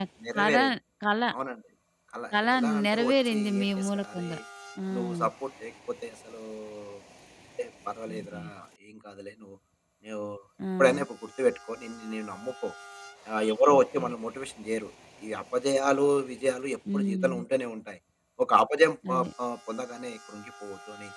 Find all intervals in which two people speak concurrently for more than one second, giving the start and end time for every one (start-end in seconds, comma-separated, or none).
2.3-4.3